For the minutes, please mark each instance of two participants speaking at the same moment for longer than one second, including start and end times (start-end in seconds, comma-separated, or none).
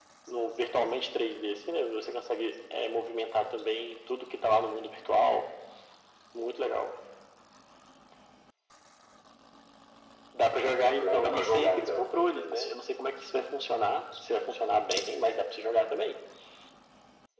10.7-12.7